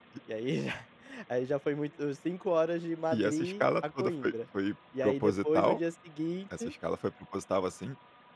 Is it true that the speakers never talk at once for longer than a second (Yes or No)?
No